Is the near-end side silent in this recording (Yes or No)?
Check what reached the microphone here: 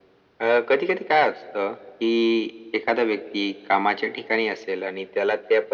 Yes